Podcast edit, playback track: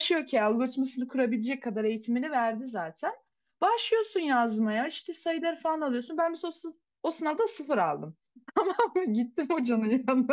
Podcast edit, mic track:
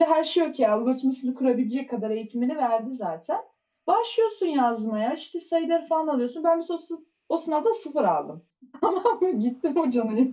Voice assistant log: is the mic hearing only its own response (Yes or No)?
Yes